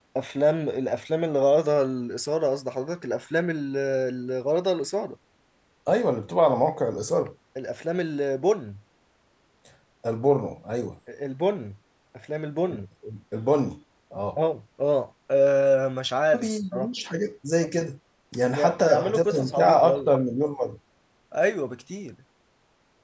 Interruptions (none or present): present